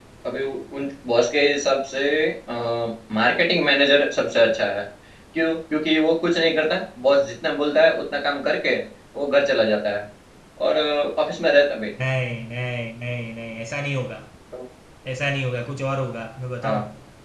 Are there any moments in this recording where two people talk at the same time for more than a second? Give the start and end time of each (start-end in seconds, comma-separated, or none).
none